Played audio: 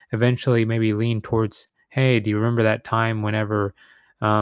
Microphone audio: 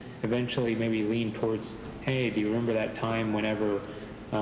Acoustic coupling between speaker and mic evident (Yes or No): Yes